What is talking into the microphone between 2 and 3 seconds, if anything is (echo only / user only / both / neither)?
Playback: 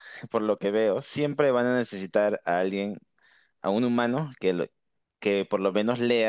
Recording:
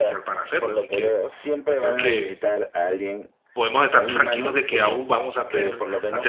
both